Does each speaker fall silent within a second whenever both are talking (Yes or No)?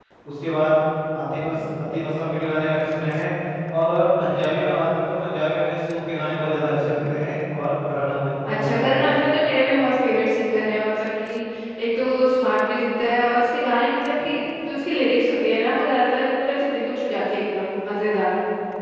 Yes